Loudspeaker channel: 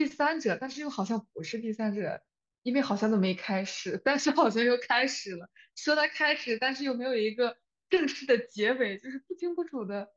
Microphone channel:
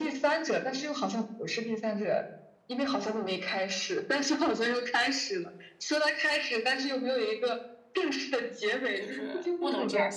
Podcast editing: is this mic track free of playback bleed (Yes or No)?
No